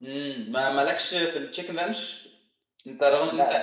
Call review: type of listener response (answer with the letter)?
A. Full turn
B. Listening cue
B